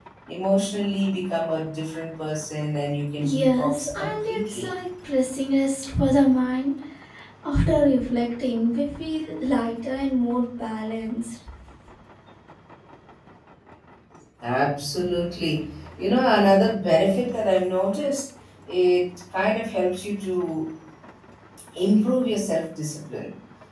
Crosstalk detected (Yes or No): Yes